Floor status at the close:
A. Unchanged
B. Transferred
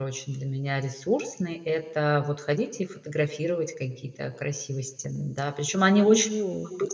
B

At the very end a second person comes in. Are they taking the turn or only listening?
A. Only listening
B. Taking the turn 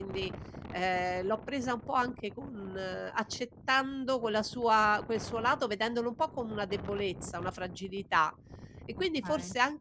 A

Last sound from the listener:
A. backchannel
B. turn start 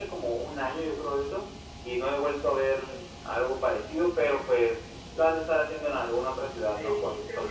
B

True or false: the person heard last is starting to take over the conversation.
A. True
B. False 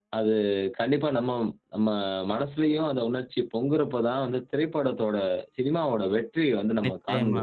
A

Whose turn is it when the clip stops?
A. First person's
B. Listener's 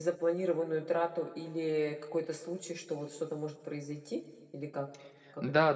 B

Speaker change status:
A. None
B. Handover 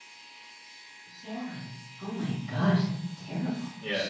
B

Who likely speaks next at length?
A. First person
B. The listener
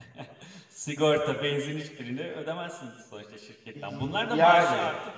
A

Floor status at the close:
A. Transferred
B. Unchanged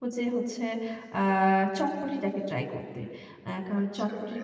A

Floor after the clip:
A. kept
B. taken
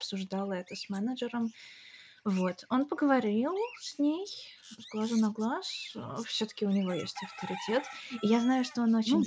A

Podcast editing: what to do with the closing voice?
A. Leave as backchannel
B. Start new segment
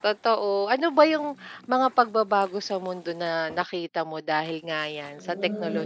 B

